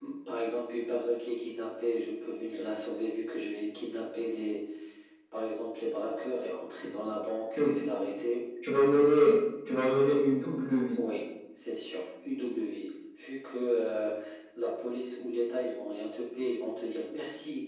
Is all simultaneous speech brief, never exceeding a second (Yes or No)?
Yes